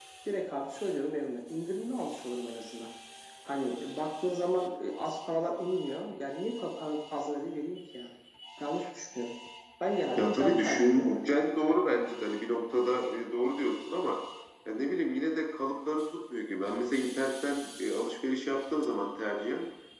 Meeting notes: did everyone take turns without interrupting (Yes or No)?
No